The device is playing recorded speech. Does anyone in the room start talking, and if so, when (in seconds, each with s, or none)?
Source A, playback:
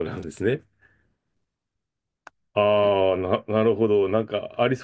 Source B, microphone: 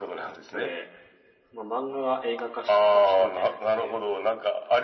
0.4 s